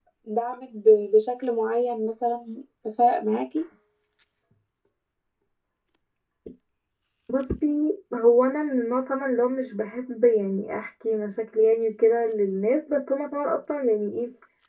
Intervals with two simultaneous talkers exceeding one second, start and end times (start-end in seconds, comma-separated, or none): none